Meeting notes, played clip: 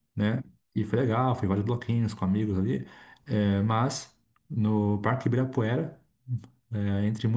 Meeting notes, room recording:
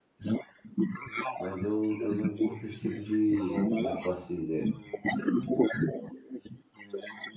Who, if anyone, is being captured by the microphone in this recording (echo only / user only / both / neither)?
both